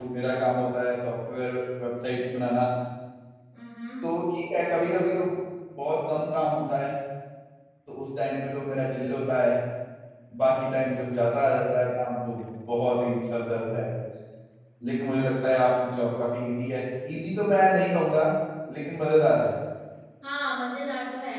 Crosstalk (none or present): none